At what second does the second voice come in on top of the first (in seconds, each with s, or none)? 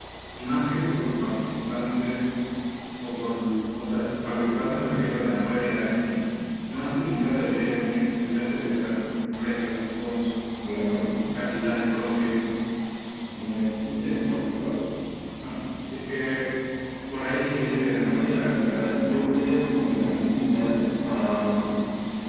17.8 s